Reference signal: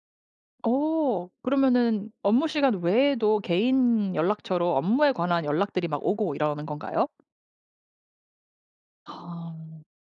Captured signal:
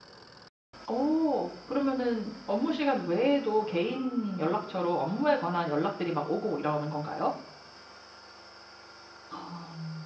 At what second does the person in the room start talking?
none

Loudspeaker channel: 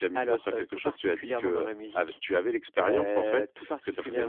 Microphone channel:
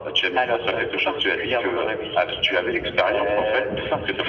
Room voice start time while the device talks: none

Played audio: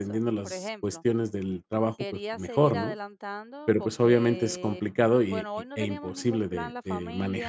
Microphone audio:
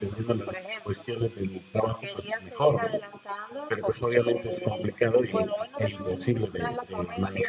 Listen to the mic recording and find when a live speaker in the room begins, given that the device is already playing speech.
none

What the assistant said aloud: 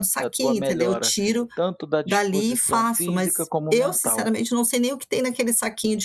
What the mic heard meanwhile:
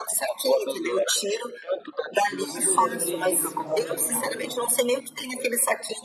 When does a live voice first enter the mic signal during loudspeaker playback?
2.2 s

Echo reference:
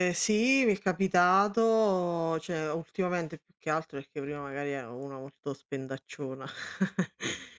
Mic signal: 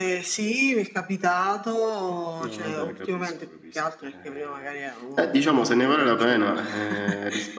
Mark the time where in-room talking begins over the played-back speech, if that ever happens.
2.4 s

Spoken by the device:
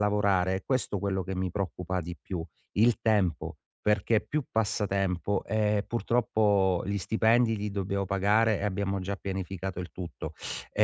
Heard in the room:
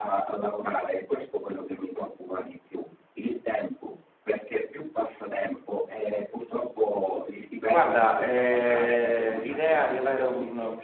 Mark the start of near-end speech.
7.7 s

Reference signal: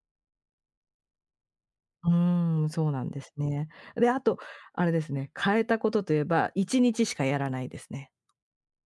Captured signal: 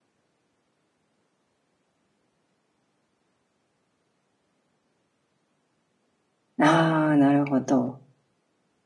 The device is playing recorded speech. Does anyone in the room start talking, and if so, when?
6.6 s

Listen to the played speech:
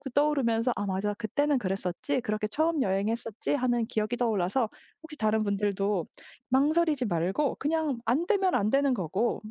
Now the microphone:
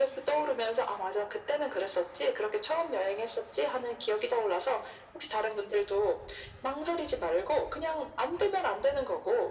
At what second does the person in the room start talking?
none

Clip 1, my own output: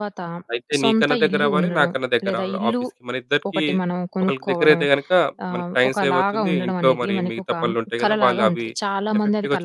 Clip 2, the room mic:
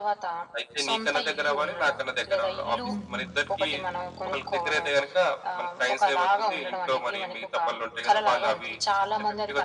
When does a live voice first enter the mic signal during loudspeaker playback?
2.8 s

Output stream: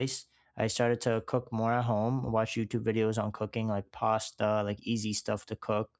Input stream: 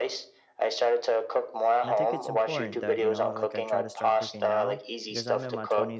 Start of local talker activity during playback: 1.8 s

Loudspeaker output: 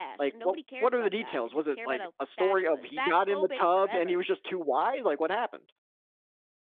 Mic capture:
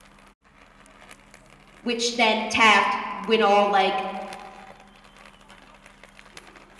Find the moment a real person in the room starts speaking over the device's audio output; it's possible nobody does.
1.8 s

